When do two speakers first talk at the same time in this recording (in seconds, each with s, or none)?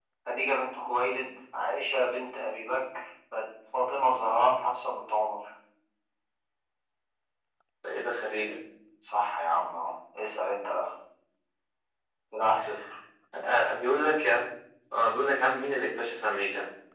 none